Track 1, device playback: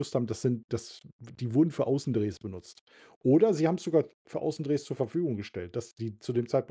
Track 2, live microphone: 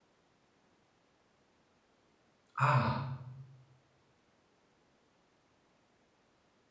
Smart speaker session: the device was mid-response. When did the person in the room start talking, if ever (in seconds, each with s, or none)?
2.6 s